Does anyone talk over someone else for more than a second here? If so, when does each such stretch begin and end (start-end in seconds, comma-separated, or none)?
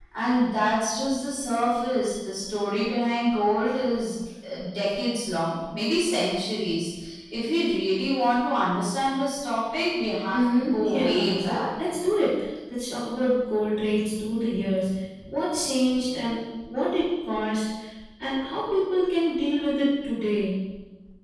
10.3-11.6